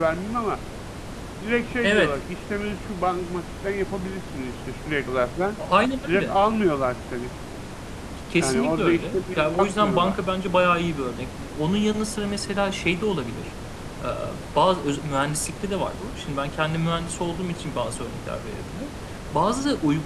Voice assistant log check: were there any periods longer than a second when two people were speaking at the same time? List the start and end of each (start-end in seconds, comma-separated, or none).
8.4-10.2